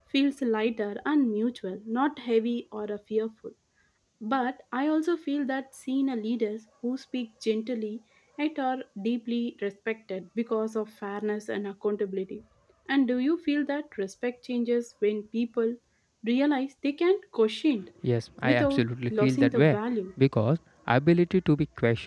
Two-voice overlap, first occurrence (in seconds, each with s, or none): 18.4 s